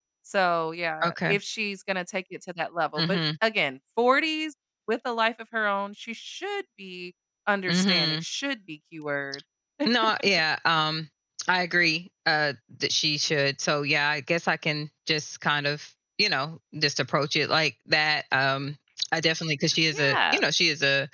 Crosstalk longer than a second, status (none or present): none